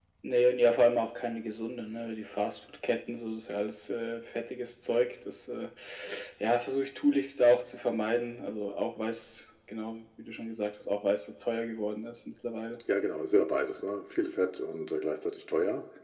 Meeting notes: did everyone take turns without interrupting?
Yes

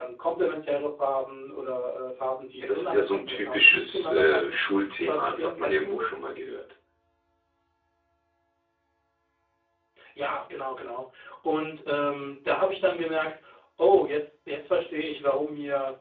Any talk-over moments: Yes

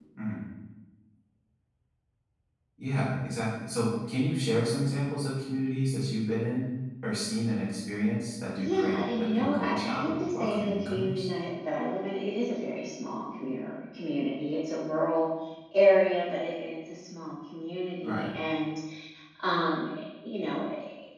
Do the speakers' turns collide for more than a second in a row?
Yes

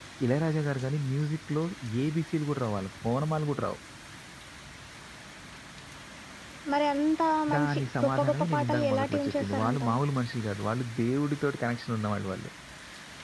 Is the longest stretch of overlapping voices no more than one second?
No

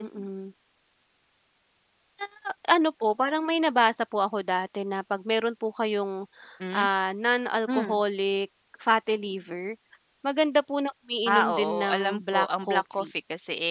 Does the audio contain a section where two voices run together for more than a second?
Yes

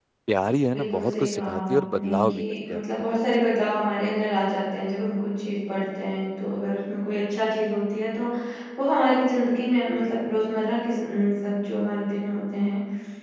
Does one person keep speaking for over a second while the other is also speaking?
Yes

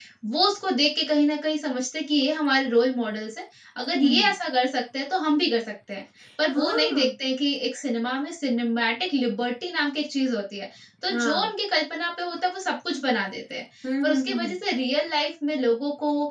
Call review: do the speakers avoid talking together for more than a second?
Yes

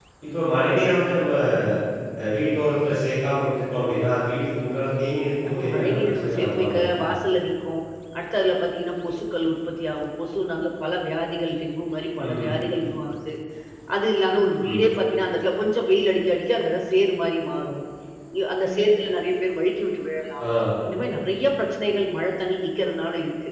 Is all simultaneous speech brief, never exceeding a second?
No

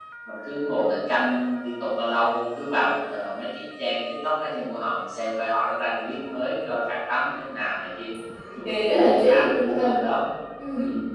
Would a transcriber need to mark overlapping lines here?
Yes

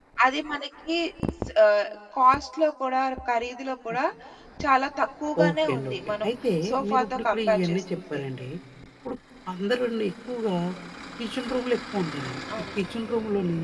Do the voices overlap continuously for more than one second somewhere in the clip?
Yes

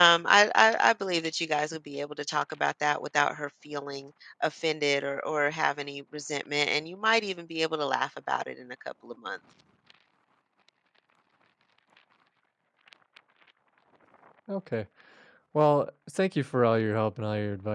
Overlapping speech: No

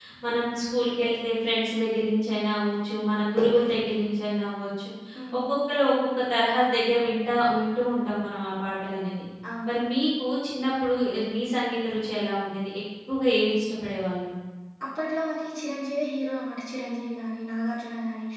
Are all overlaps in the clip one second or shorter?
Yes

